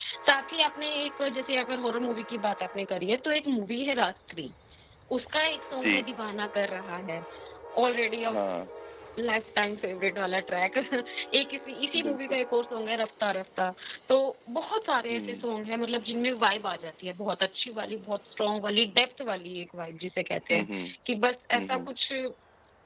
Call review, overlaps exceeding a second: none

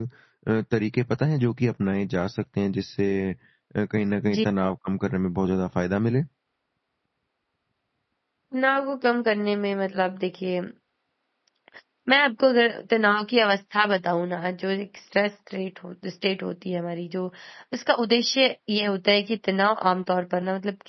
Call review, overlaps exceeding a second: none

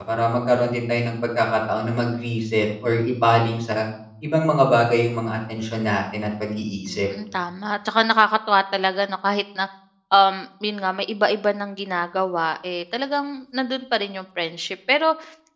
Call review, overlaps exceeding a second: none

